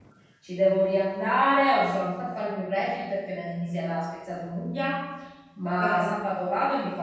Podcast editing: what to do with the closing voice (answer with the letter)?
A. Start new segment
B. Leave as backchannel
B